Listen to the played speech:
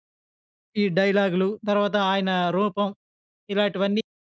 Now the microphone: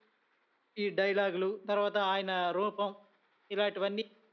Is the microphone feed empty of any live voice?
Yes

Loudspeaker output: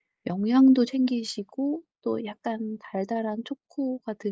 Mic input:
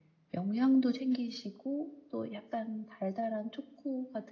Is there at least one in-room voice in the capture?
No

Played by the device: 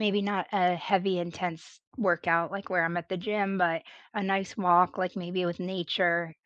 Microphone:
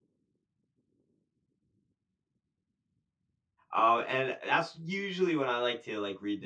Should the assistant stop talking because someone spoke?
Yes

